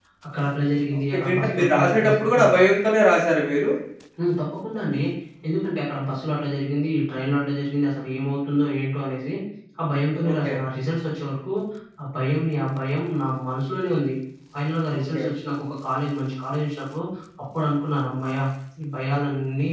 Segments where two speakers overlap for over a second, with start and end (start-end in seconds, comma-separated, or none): 1.1-2.4